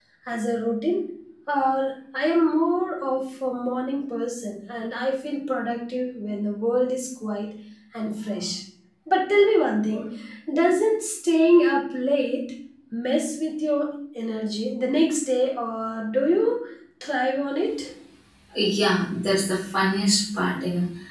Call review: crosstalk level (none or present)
none